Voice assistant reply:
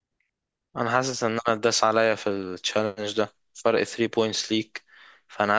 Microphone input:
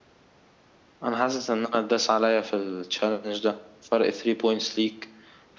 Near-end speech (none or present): none